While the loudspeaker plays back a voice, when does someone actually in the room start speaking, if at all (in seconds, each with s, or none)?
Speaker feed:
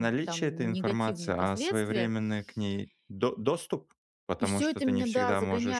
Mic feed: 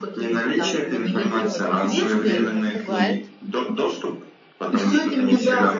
0.5 s